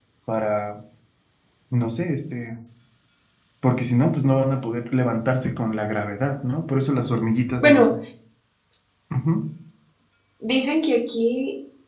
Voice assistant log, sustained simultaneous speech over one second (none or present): none